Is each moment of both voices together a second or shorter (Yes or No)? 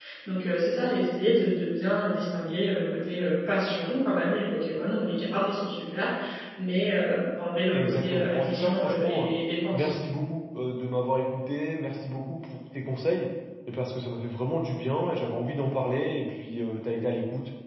No